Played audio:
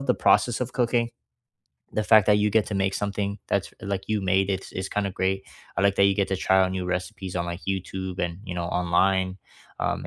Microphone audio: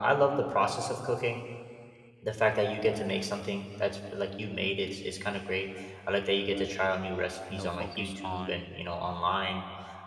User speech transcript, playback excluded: you know focus on

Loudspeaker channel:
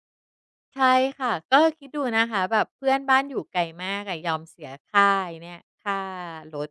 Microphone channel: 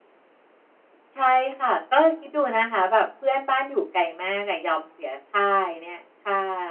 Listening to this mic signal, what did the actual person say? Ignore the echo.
none

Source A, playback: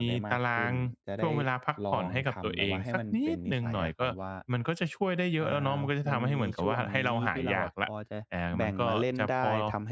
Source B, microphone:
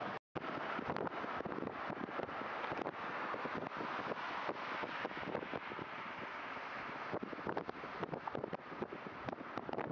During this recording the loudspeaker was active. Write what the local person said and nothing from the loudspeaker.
none

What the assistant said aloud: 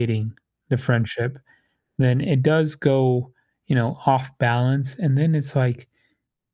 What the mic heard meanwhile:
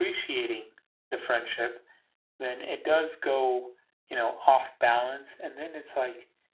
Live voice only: none

